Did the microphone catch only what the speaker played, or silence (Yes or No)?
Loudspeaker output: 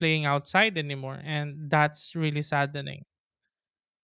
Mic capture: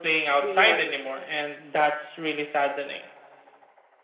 No